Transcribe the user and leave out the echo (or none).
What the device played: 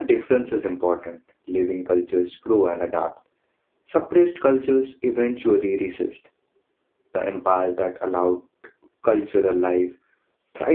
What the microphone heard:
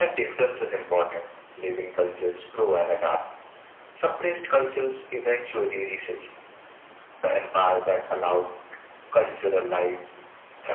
none